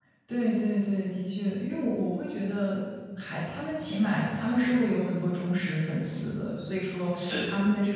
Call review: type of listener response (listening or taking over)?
listening